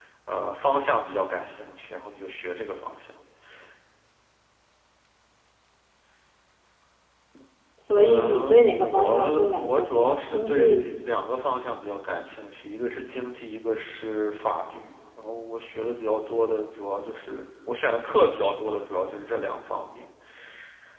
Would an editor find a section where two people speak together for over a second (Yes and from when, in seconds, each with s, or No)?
Yes, from 7.9 s